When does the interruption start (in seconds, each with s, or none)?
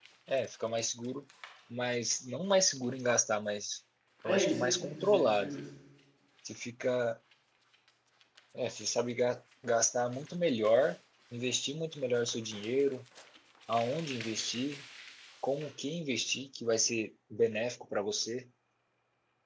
4.2 s